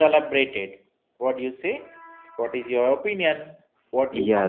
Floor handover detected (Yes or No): Yes